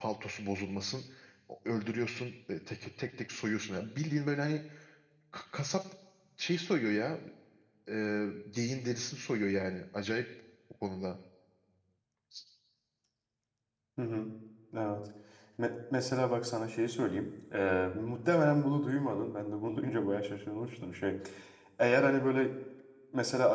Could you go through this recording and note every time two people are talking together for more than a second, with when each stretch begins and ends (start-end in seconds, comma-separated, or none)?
none